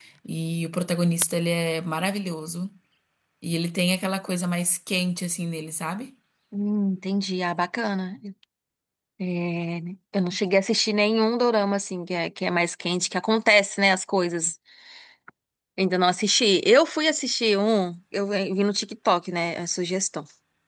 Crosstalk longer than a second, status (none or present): none